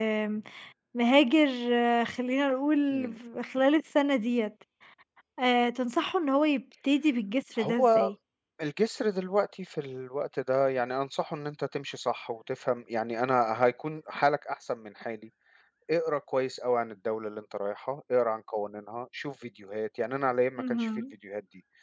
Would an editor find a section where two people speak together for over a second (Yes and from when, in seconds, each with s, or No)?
No